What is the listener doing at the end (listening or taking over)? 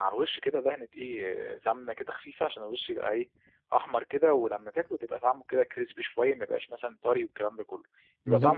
taking over